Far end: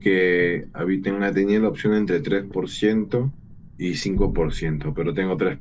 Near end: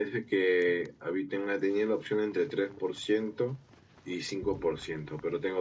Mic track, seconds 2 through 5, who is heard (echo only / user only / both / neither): echo only